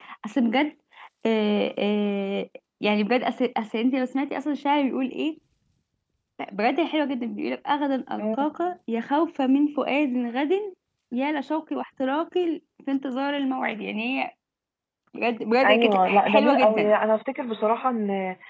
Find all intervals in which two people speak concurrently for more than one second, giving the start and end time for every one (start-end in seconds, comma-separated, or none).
15.6-16.9